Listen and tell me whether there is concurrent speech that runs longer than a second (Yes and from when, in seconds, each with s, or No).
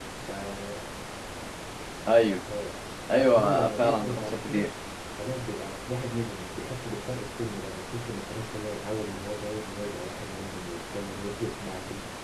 Yes, from 3.2 s